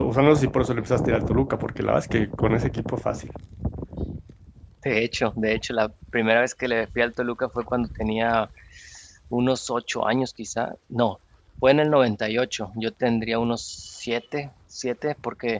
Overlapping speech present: No

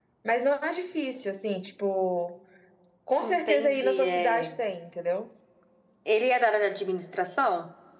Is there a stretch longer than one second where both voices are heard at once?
Yes, from 3.2 s

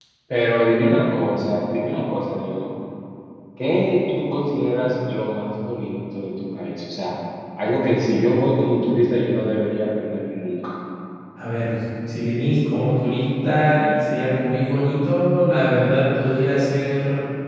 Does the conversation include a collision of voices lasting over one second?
No

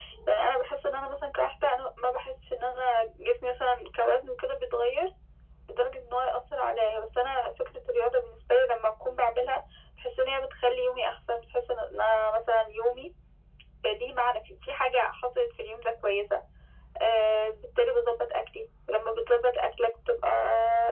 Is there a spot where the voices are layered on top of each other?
No

